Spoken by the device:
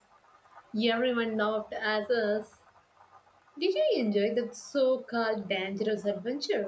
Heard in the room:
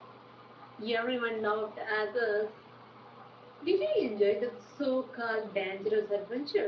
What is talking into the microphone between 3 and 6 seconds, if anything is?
echo only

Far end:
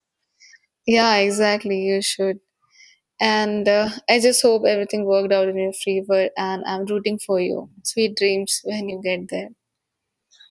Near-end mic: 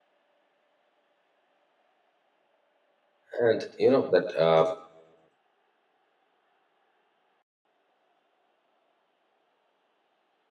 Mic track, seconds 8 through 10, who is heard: neither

